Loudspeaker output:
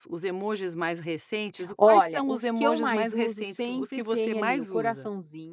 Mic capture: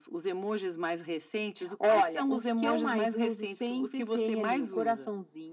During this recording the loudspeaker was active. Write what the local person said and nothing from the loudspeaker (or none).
none